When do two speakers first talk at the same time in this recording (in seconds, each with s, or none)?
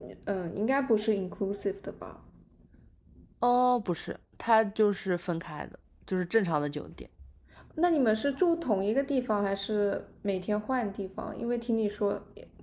none